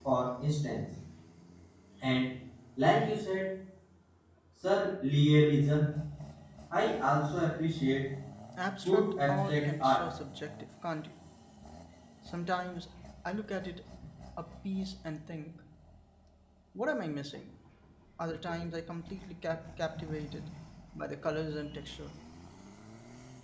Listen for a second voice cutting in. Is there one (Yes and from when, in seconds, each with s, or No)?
Yes, from 8.8 s